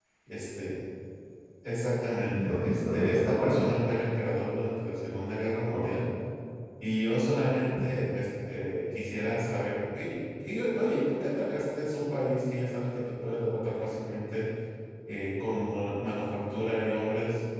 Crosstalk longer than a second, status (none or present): present